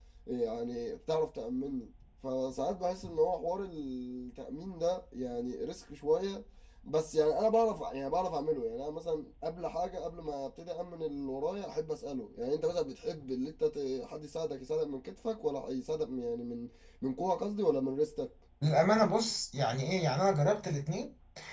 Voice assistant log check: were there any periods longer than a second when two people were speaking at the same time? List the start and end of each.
none

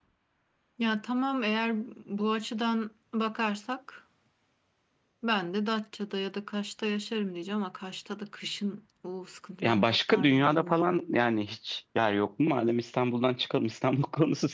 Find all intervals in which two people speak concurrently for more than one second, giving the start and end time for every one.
9.6-10.9

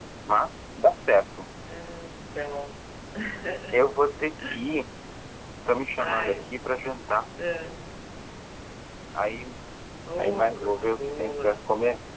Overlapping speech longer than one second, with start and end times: 10.2-11.6

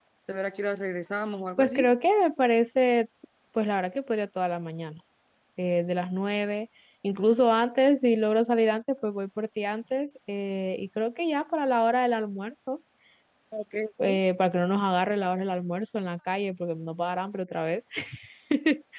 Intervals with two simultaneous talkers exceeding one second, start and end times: none

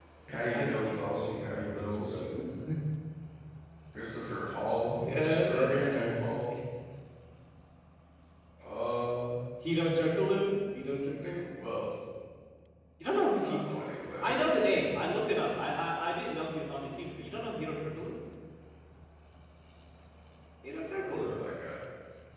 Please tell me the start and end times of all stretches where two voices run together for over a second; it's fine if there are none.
0.5-2.1, 5.0-6.3

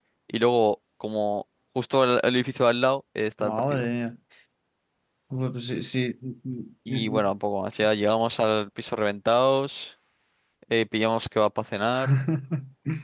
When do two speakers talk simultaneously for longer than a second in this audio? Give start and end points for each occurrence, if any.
none

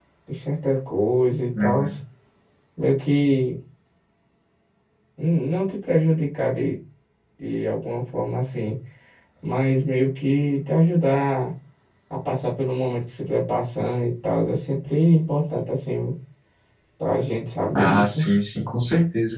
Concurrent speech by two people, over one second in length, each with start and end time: none

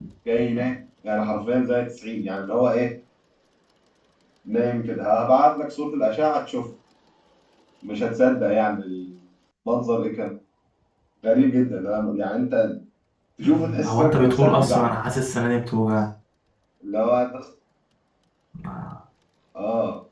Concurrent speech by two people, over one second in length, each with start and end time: 13.4-14.9

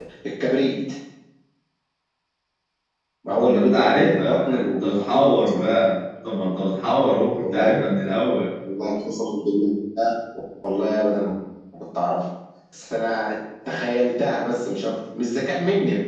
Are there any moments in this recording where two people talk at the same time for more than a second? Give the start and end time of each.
3.4-5.3

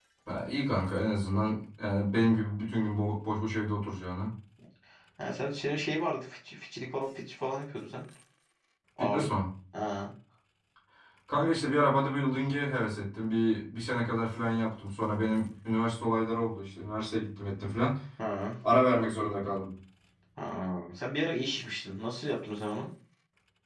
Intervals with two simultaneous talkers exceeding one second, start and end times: none

